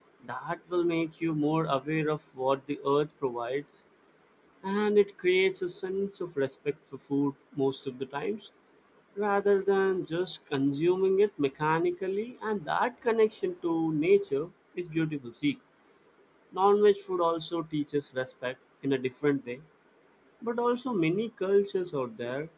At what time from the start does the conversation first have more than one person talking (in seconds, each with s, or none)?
none